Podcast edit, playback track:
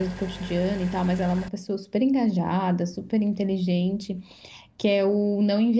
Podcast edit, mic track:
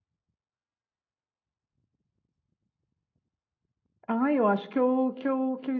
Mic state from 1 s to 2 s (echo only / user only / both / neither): neither